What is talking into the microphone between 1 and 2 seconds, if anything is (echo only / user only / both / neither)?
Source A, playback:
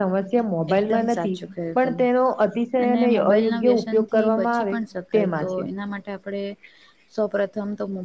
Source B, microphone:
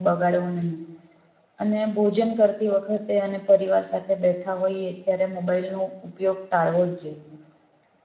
user only